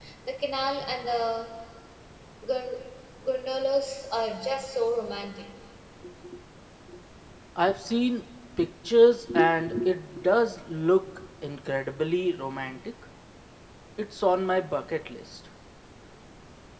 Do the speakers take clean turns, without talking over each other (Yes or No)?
Yes